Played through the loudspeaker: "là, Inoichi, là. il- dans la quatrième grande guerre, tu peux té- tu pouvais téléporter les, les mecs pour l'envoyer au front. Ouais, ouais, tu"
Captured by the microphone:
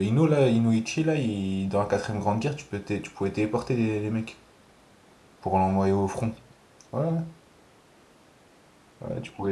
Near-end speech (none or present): none